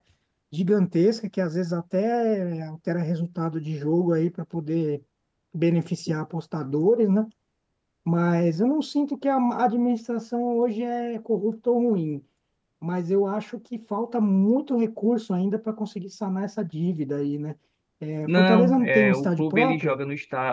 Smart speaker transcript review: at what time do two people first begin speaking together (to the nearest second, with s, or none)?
18 s